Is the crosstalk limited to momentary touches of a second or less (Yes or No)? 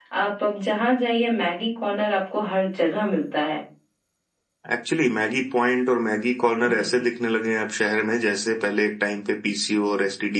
Yes